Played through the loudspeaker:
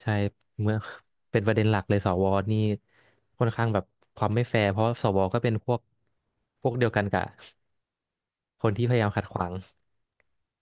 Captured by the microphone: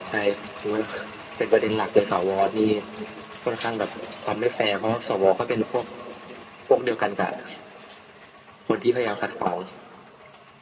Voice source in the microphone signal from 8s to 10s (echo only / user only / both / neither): echo only